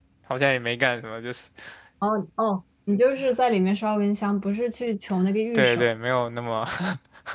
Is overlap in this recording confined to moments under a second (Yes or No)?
Yes